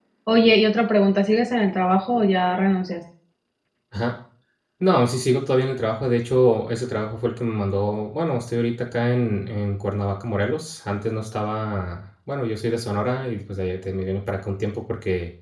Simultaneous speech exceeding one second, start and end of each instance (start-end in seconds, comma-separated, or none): none